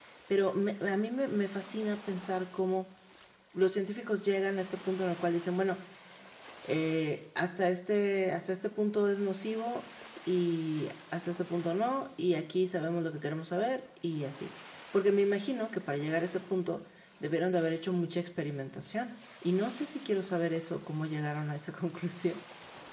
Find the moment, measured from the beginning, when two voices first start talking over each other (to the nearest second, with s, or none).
none